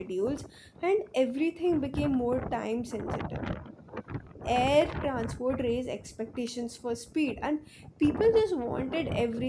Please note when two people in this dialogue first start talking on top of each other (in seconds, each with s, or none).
none